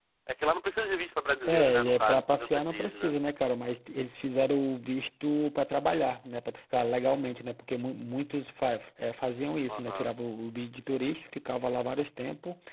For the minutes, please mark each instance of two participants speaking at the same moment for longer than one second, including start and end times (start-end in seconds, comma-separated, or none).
1.4-3.1